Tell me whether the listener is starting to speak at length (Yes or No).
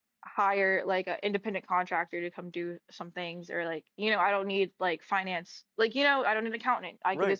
Yes